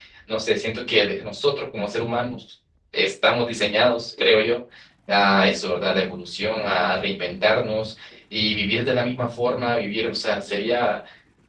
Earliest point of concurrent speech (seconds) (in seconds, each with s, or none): none